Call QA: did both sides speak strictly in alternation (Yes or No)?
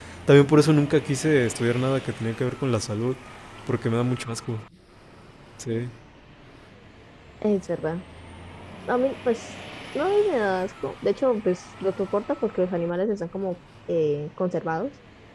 Yes